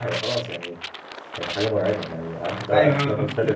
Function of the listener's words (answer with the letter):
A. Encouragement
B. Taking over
A